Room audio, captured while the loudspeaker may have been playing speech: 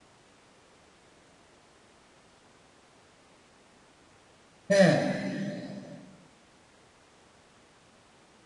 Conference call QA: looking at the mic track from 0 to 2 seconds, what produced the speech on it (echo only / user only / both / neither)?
neither